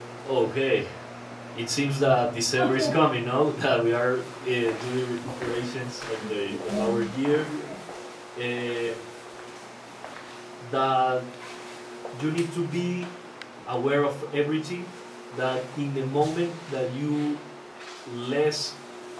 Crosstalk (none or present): present